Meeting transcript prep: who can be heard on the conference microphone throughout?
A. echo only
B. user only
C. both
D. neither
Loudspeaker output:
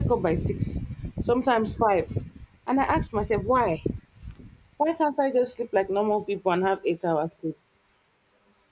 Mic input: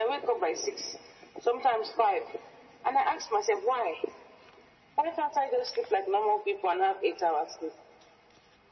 A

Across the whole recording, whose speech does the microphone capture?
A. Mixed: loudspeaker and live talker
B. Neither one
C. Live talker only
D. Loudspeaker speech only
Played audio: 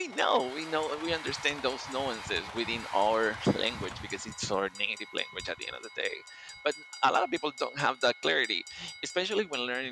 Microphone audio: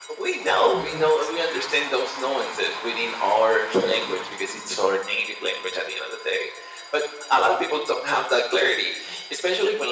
A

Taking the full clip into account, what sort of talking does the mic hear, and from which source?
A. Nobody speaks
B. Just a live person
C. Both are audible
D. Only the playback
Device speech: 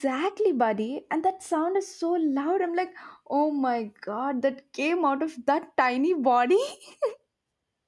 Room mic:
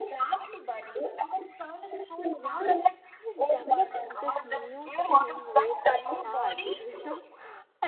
C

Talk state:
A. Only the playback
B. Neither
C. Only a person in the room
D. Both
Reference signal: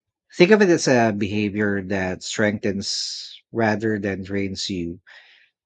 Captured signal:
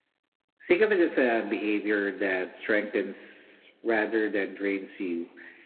A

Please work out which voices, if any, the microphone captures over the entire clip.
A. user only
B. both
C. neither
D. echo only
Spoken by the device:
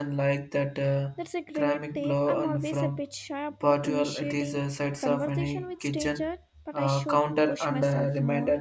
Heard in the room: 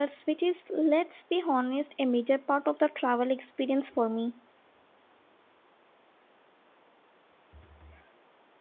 A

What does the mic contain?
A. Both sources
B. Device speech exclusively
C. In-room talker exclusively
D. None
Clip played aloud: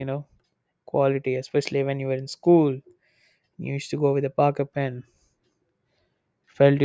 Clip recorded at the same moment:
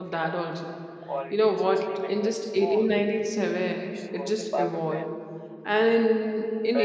A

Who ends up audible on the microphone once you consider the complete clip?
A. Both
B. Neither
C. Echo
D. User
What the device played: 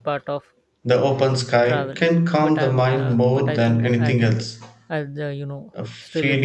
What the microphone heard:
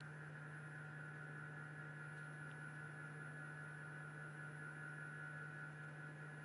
B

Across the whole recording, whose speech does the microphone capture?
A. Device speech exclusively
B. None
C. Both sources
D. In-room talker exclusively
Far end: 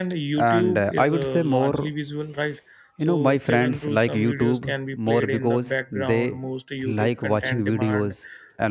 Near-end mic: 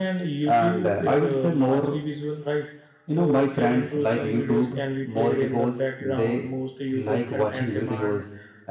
A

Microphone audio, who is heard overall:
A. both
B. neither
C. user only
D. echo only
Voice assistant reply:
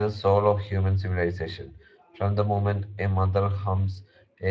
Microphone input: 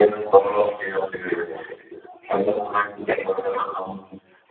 D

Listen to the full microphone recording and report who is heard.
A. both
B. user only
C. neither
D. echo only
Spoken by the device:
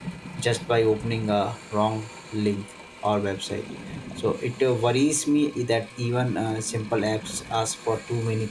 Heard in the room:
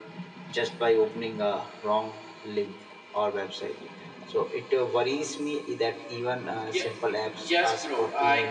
A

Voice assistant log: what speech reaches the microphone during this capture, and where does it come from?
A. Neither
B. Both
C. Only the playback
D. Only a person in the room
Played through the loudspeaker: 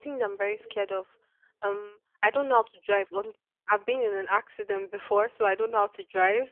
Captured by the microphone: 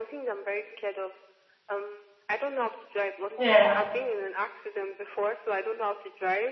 B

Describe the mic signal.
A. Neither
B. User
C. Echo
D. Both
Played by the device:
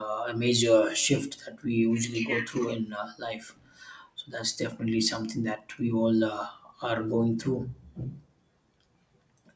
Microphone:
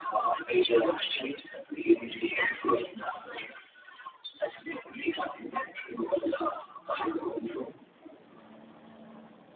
C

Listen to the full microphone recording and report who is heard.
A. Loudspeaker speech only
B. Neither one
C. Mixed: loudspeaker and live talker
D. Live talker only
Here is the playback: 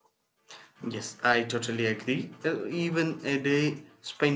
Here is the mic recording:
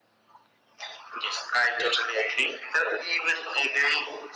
A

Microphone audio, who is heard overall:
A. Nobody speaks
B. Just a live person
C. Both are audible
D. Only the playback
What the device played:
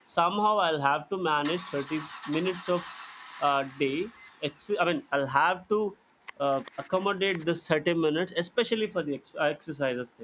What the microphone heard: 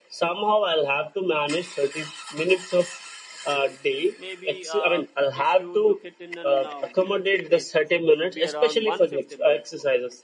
C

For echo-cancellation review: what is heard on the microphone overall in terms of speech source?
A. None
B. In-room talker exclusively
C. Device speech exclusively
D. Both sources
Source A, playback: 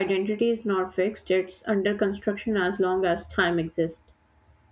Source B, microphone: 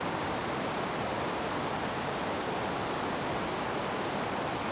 A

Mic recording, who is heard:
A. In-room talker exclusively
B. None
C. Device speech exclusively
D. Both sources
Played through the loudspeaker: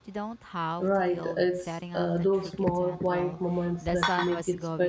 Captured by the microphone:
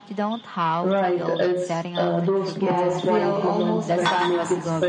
D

